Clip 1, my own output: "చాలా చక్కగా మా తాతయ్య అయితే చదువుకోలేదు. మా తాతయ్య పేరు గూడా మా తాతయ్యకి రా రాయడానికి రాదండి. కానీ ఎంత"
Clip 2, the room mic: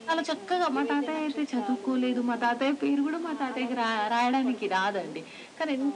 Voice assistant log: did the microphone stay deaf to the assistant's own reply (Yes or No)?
No